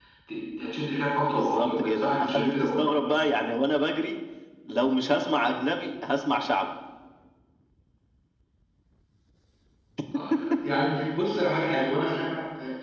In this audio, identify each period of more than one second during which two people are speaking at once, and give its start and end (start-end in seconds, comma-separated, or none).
1.3-2.8